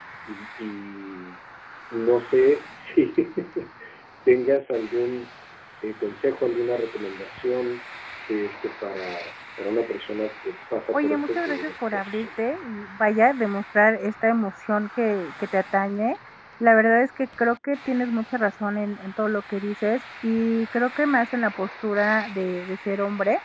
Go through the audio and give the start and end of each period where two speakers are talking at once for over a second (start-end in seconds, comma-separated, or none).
10.9-12.4